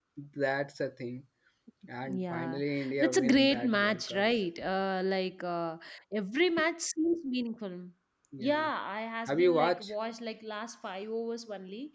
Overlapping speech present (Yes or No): Yes